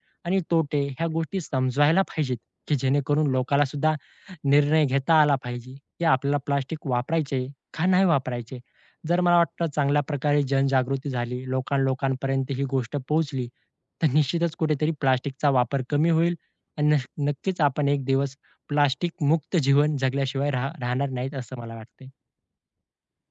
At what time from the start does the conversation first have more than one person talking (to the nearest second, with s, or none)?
none